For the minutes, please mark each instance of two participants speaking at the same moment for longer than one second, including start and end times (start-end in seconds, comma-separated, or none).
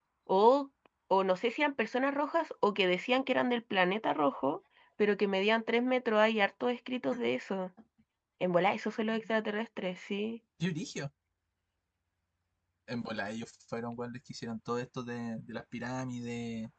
none